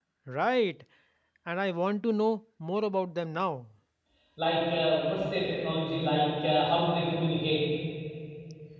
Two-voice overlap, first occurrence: none

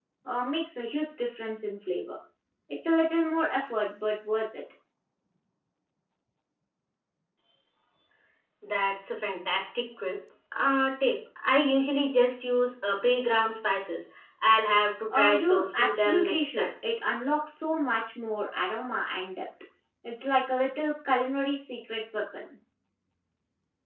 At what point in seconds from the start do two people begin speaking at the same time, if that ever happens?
15.1 s

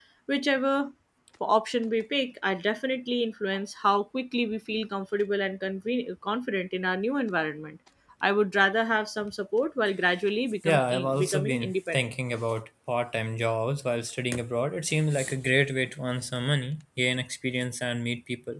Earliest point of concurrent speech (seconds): 10.6 s

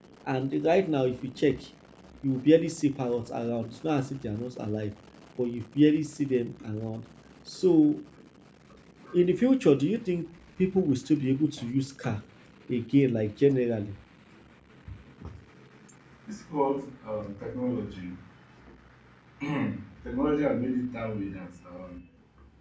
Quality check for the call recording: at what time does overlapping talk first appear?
none

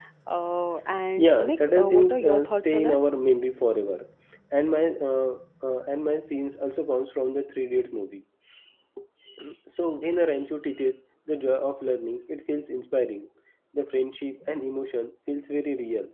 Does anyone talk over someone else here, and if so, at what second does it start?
1.2 s

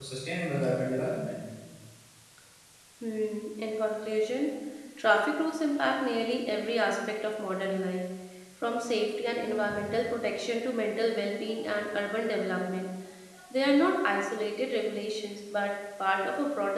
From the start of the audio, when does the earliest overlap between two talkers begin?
none

